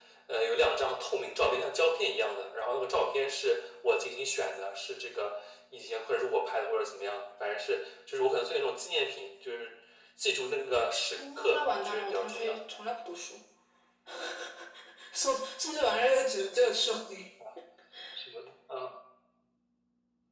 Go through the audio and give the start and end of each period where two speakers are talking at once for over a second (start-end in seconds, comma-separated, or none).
11.2-12.6